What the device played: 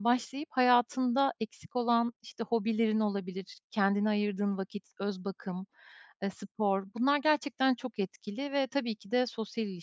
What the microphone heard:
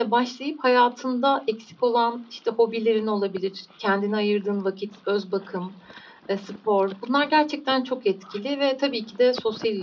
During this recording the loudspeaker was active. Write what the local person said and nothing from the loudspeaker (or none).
none